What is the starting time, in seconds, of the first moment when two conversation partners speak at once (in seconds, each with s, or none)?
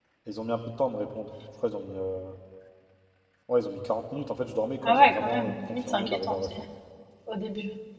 4.8 s